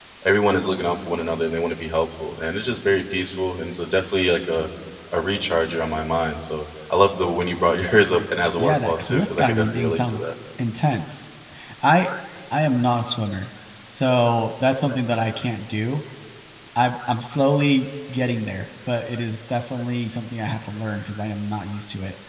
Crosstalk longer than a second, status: present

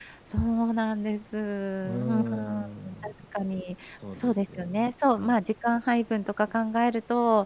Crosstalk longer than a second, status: present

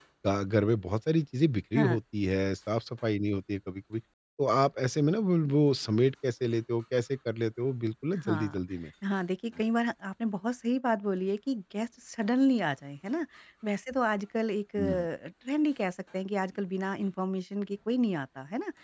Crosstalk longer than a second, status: none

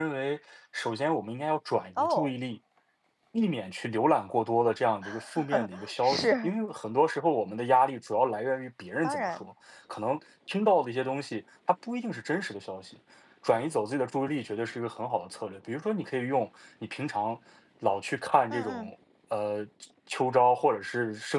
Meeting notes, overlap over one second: none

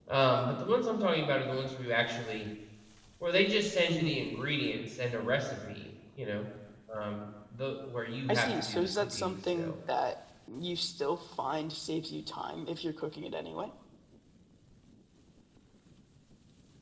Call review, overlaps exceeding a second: present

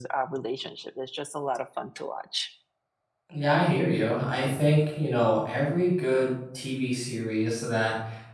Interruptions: none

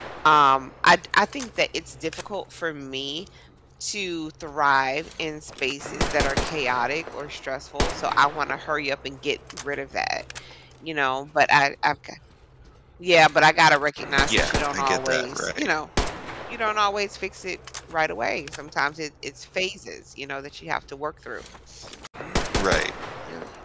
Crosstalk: present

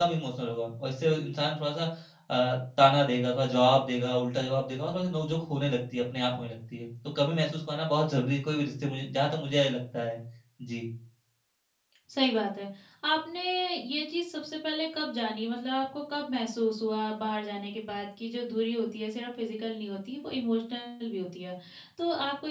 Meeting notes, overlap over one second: none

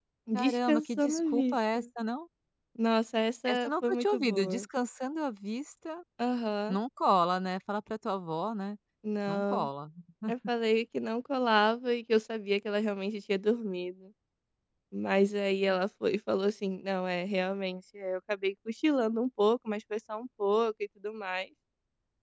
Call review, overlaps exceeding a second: present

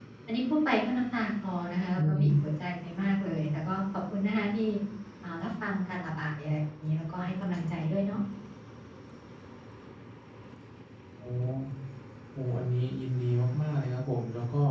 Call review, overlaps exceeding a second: none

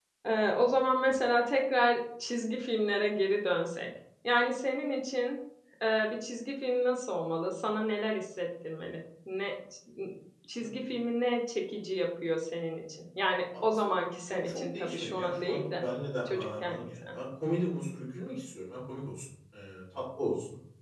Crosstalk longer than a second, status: present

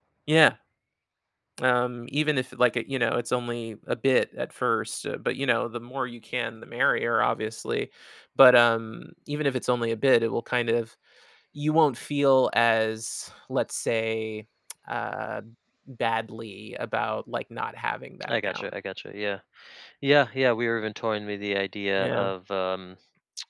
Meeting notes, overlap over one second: none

